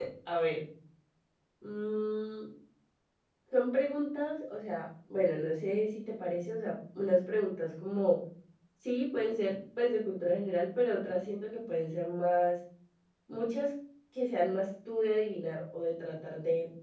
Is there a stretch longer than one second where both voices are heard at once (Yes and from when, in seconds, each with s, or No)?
No